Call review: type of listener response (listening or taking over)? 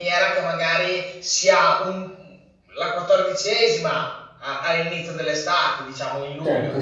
listening